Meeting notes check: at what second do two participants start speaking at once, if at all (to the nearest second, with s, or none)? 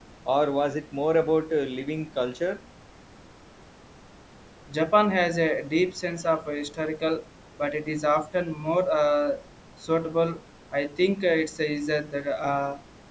none